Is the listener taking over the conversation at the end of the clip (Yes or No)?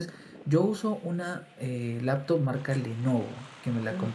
No